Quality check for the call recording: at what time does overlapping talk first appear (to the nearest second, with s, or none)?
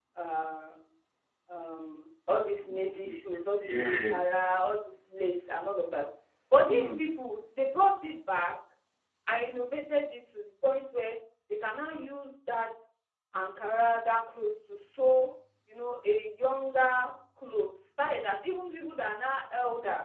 3 s